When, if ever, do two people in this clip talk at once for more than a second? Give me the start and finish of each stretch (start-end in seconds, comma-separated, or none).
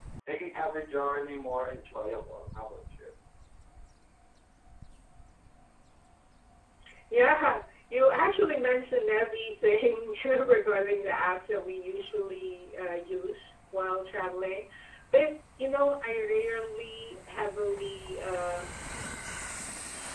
none